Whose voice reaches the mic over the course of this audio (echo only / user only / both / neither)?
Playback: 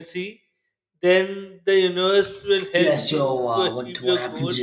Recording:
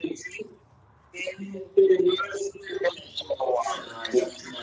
both